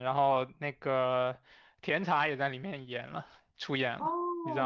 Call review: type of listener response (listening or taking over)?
taking over